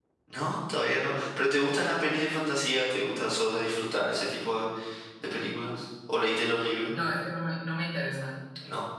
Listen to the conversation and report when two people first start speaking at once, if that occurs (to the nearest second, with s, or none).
none